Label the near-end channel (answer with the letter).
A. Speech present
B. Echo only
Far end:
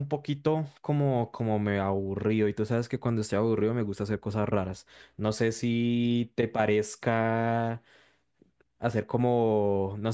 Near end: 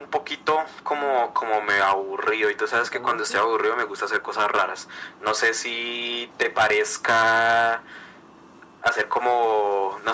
A